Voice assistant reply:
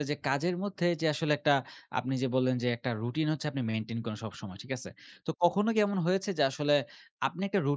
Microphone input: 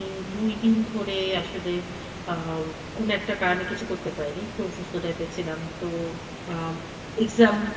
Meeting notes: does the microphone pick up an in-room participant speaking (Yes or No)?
Yes